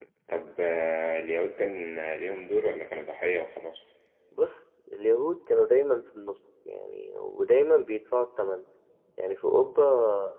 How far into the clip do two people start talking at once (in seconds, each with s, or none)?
none